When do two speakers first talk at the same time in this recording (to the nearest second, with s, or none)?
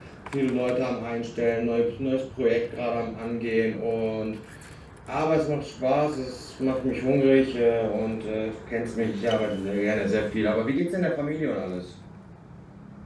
none